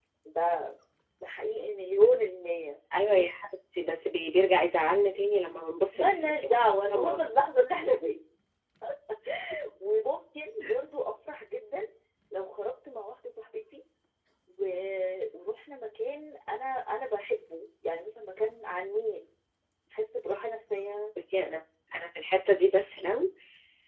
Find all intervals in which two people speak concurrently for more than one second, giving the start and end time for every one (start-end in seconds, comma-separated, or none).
5.9-7.2